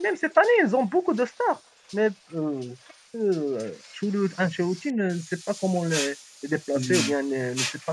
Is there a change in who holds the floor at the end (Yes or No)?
No